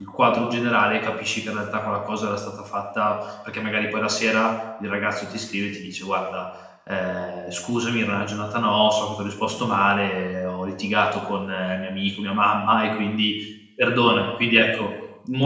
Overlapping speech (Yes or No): No